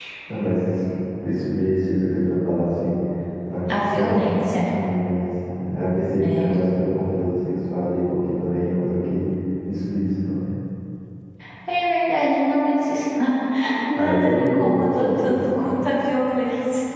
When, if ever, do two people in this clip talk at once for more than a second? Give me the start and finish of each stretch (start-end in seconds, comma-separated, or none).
14.0-15.7